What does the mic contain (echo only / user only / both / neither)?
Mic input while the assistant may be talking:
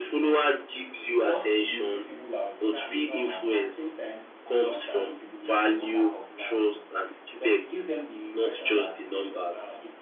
both